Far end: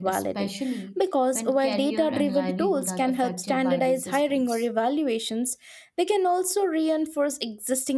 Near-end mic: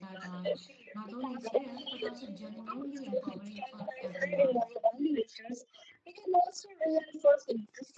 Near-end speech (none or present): present